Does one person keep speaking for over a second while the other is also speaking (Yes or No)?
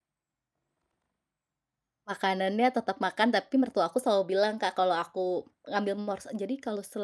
No